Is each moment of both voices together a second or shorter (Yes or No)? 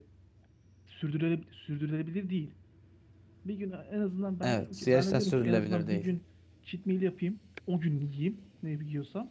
No